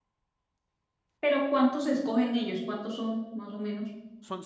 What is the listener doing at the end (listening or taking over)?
taking over